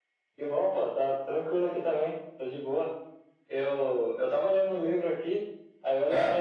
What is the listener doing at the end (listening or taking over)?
listening